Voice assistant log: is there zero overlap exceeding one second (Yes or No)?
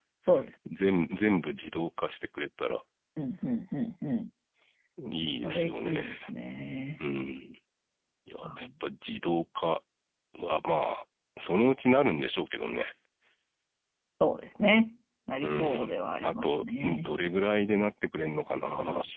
No